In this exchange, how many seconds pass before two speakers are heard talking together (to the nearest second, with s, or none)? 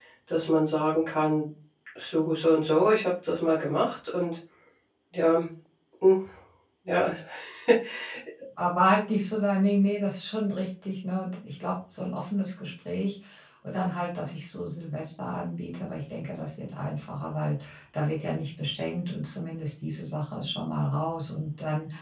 none